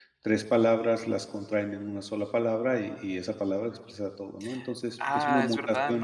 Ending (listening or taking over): taking over